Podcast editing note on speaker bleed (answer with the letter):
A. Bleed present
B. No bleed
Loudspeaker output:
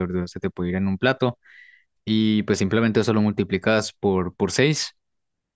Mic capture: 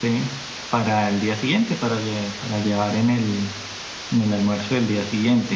B